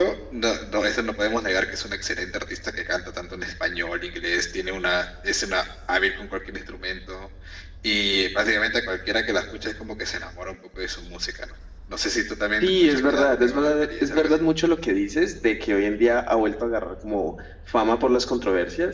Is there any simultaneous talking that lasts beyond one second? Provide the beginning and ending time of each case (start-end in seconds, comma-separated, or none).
12.6-14.4